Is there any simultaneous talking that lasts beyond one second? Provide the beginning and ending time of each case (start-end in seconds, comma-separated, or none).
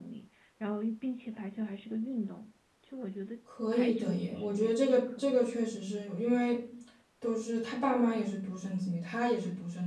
3.7-5.4